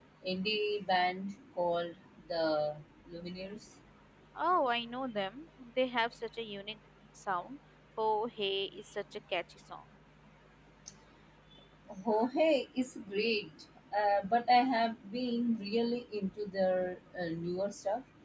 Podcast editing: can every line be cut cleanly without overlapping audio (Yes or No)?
Yes